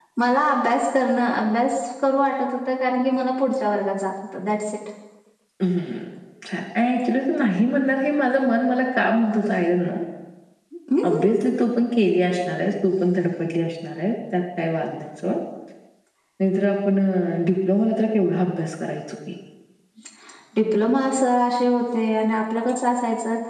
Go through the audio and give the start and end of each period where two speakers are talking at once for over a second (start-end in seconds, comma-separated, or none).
none